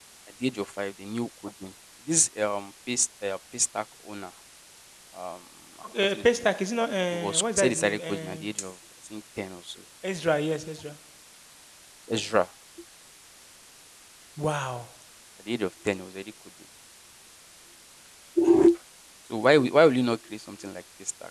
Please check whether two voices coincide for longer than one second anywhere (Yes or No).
Yes